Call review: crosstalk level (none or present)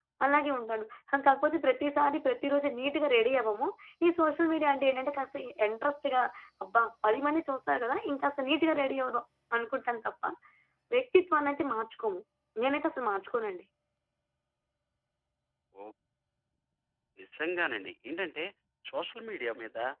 none